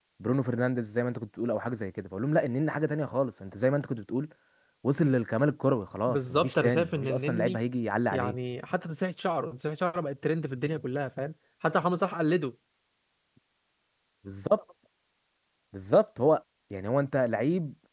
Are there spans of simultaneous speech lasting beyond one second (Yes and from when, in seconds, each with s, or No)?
Yes, from 6.1 s